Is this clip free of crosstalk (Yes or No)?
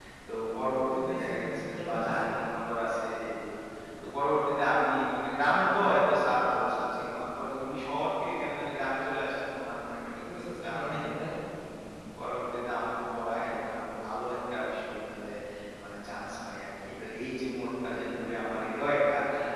No